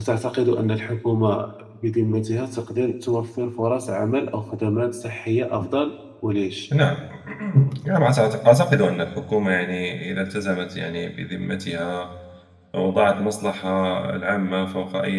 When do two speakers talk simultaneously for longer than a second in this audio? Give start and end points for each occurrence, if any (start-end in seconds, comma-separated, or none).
none